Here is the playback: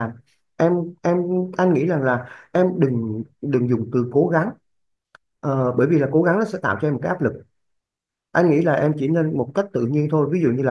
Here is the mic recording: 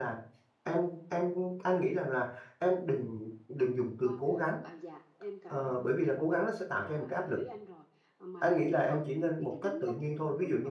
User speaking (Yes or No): Yes